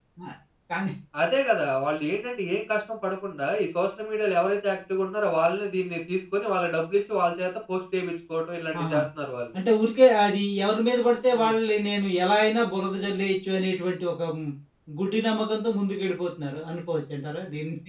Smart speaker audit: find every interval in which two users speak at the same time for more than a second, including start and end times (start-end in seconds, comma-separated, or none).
none